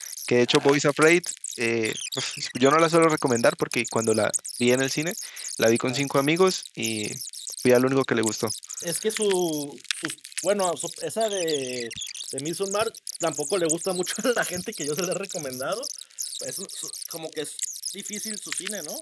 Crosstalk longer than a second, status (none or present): none